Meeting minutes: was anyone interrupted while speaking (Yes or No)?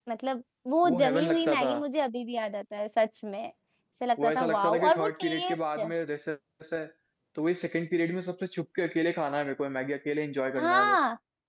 Yes